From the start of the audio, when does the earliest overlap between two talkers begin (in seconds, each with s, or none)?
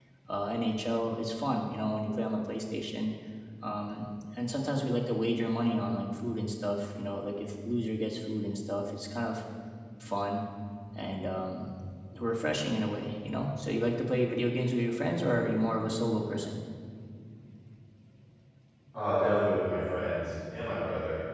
none